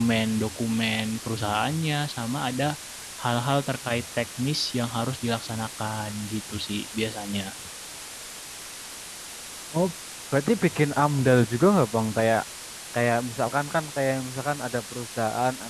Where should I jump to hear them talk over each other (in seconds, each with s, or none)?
none